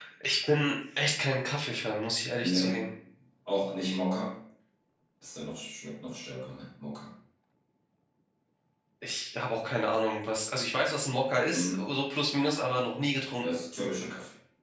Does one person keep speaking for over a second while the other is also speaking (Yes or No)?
No